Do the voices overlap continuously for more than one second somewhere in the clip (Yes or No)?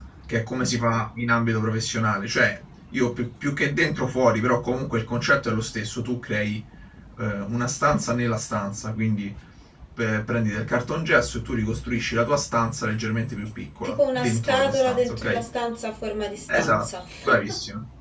Yes